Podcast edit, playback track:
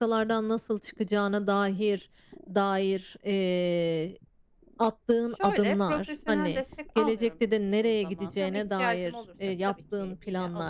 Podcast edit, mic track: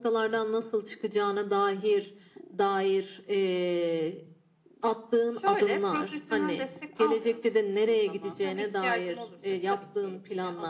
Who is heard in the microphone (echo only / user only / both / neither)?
echo only